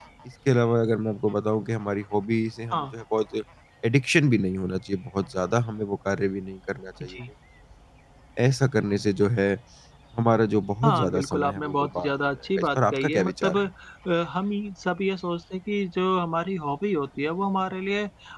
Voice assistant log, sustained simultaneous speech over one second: present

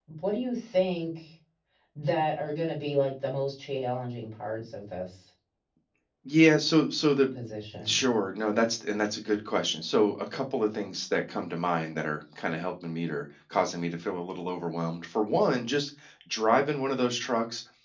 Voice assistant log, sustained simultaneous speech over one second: none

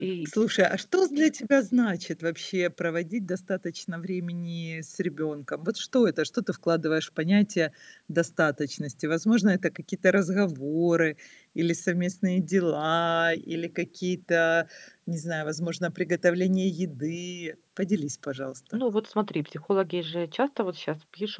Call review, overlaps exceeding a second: none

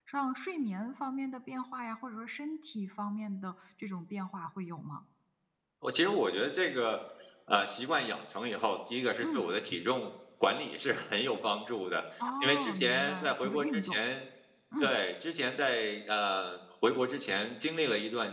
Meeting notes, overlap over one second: present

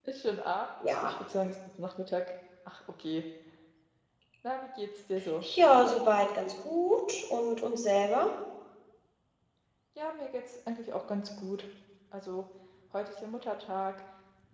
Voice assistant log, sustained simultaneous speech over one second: none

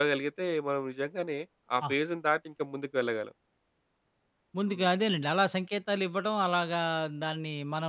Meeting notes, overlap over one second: none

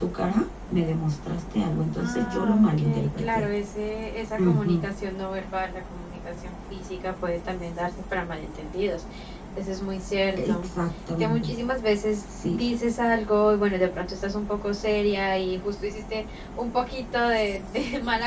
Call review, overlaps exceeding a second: present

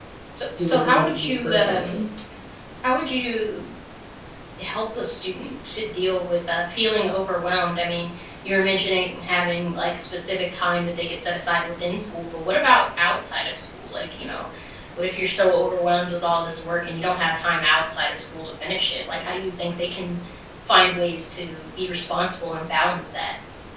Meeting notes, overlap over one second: present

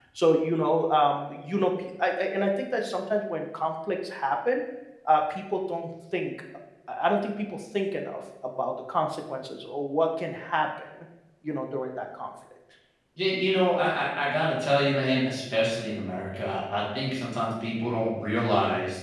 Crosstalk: none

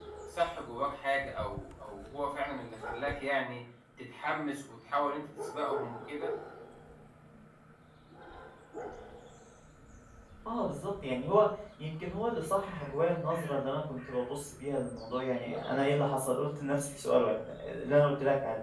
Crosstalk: none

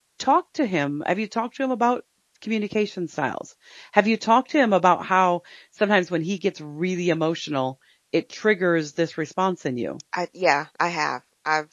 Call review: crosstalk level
none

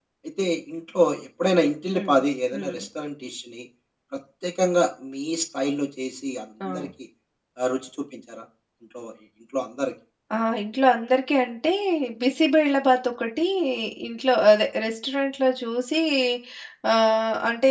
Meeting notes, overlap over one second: none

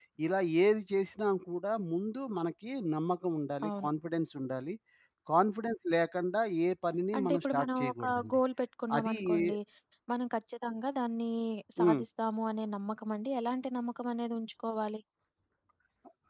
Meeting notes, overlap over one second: present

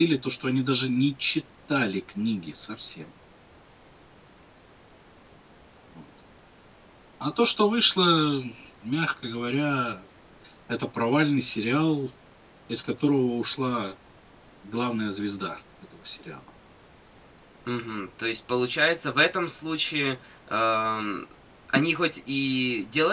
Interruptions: none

